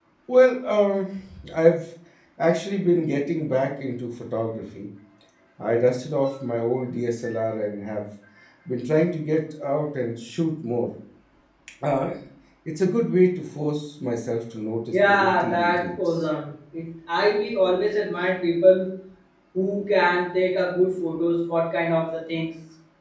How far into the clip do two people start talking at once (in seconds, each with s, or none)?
14.9 s